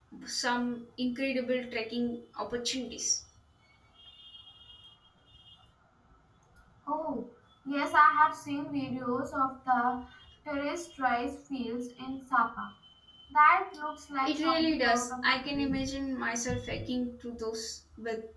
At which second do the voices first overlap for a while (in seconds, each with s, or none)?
14.2 s